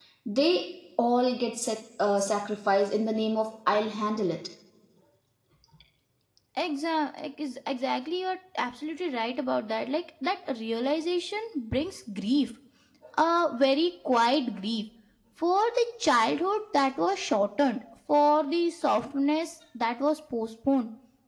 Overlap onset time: none

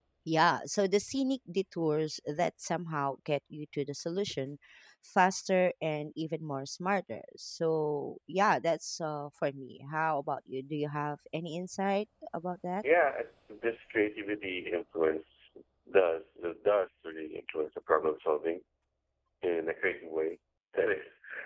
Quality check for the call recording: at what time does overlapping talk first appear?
none

